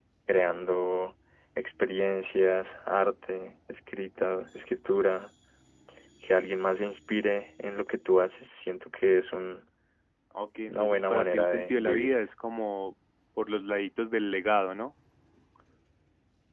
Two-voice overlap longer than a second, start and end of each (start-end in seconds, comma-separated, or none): 10.7-12.1